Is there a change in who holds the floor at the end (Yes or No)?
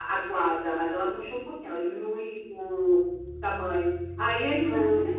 No